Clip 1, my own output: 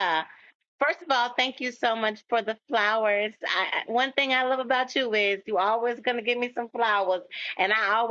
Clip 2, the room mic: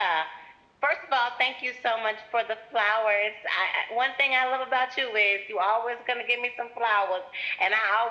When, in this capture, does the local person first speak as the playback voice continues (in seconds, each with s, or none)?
none